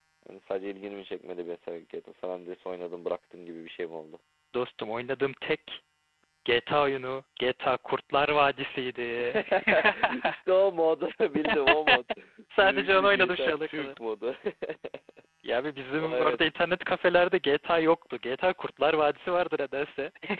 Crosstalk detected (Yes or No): Yes